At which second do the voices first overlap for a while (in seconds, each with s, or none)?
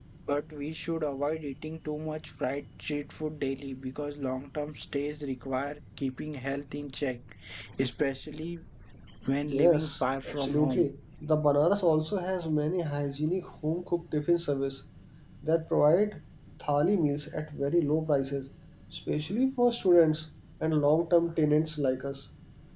9.4 s